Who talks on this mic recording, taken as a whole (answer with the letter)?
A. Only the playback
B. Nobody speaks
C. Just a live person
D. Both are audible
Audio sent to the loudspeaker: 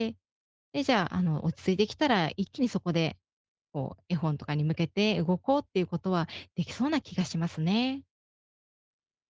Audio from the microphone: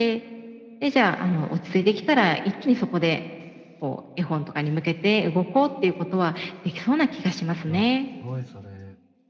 D